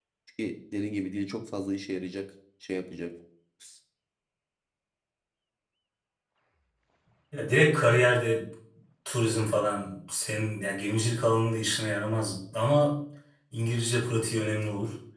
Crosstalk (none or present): none